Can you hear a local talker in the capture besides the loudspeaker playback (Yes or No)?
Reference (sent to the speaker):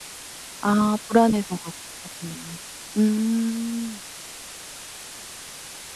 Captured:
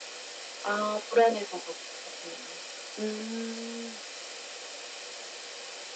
No